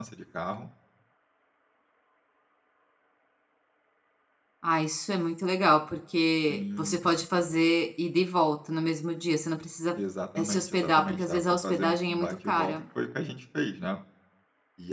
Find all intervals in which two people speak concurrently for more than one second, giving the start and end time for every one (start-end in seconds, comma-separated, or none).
10.3-12.8